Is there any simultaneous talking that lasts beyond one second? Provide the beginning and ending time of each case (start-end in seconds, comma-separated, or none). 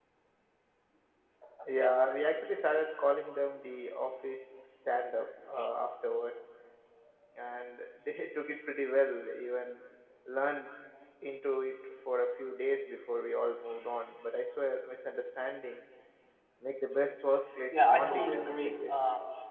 17.7-19.0